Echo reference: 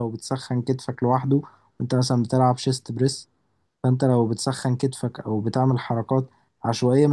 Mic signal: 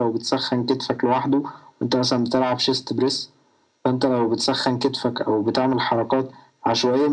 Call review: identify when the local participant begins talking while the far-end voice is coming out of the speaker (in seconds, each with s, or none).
none